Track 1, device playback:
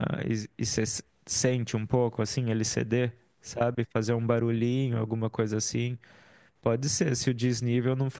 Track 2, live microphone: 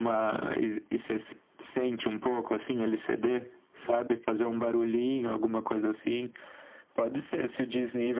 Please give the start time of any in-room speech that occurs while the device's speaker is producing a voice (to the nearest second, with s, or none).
none